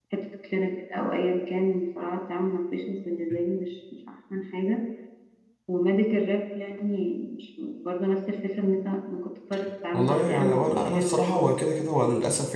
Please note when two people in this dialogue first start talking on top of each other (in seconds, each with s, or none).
9.9 s